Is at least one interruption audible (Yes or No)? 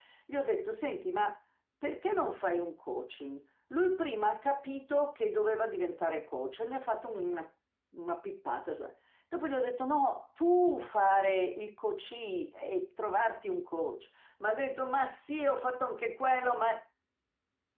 No